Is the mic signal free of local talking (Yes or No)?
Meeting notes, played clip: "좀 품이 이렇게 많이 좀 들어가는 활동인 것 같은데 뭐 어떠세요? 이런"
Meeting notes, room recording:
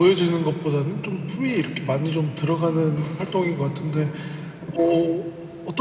No